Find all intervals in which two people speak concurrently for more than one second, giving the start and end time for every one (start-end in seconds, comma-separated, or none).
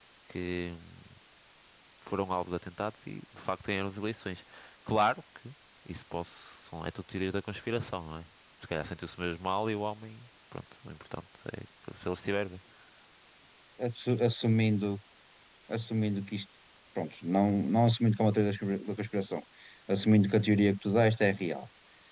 none